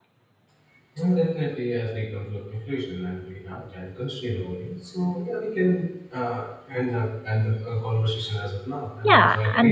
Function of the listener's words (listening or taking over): taking over